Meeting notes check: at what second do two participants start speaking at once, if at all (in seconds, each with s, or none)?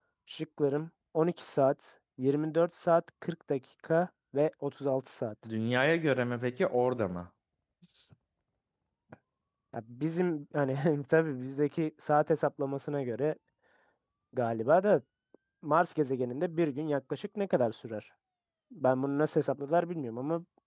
none